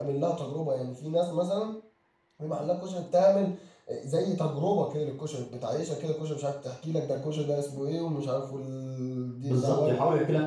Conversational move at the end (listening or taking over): taking over